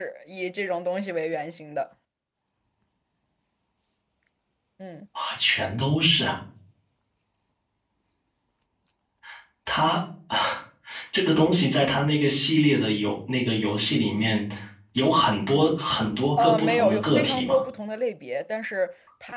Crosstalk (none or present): present